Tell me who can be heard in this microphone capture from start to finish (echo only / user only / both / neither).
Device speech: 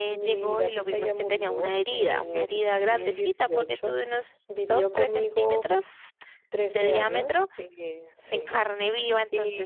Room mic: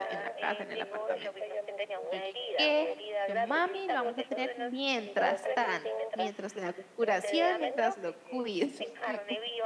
both